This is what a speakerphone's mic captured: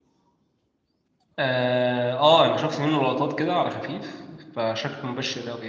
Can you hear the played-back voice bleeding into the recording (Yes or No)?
No